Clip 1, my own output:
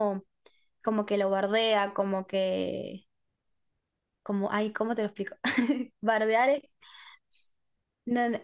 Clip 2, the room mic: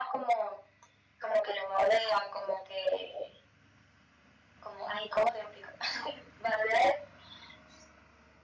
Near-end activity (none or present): none